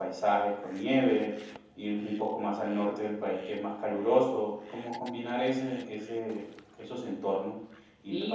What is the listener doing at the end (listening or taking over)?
taking over